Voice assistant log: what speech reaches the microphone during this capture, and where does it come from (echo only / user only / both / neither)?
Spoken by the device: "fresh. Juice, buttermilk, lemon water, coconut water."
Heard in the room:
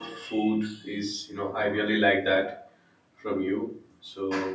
user only